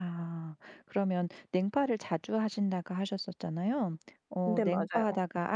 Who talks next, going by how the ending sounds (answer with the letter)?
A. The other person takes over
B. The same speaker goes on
B